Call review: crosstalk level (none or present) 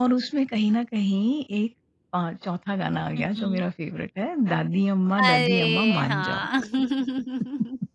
present